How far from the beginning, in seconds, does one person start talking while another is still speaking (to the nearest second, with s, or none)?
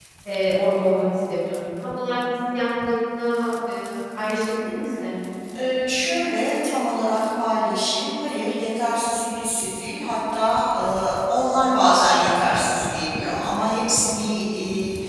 none